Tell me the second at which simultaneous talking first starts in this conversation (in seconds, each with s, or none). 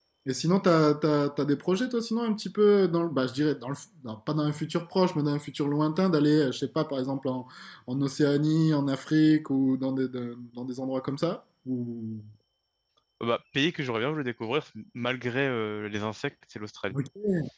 none